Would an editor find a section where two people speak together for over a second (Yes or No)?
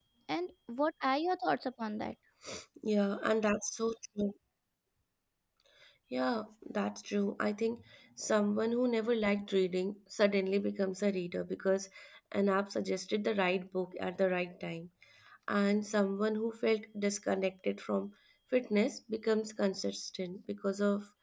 No